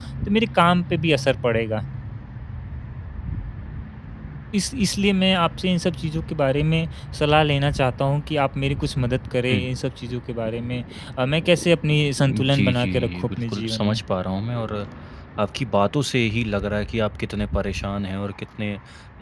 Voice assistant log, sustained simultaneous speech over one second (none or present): present